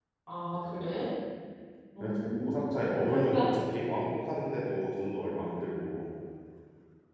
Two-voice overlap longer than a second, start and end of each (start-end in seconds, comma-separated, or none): 2.0-3.4